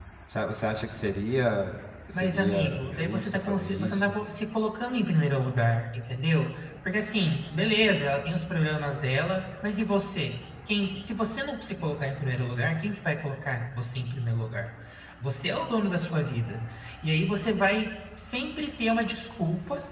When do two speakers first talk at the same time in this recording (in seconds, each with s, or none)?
2.1 s